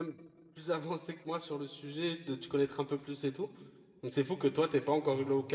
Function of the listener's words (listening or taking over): listening